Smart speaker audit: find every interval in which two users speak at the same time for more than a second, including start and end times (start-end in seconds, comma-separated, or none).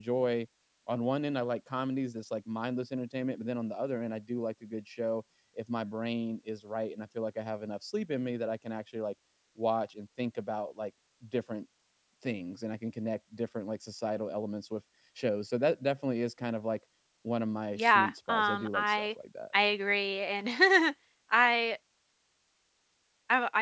17.8-19.1